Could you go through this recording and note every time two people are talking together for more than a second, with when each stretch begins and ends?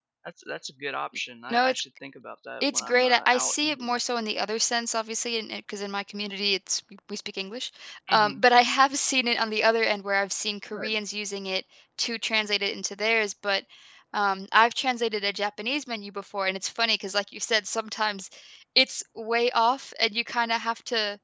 2.6-4.0

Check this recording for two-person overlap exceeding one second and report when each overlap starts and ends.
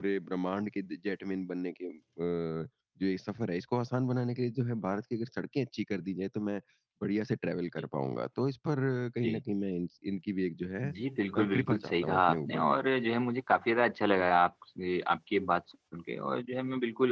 11.3-12.7

